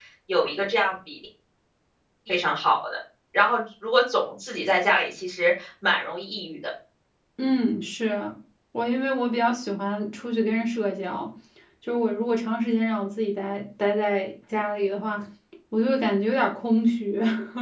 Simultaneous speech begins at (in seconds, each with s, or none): none